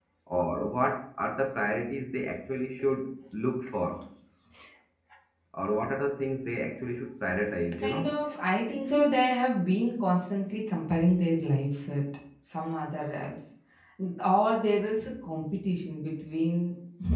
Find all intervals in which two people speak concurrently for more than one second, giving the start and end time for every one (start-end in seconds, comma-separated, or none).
none